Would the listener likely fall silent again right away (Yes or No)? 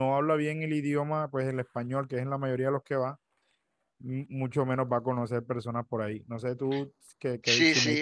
No